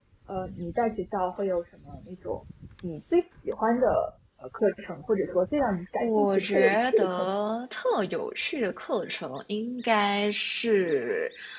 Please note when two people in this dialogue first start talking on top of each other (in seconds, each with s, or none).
6.0 s